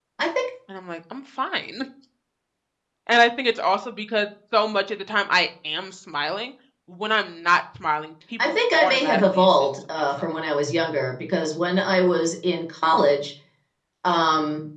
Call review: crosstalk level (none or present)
present